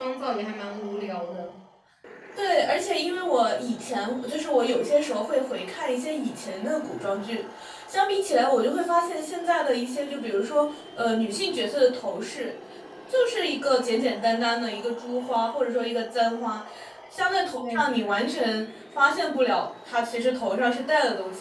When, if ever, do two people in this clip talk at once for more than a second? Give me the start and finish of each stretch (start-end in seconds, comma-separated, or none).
none